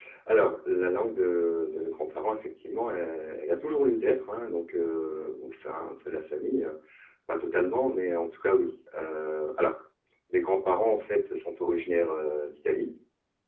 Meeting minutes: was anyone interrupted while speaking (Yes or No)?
No